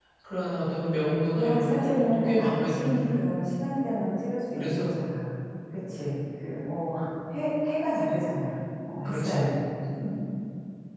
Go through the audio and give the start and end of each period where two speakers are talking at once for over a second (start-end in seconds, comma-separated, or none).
1.4-3.2